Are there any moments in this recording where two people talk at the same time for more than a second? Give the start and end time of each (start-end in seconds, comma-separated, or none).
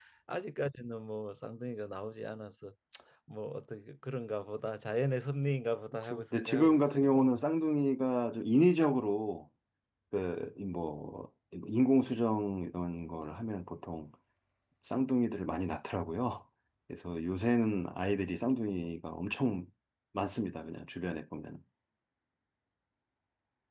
6.0-7.3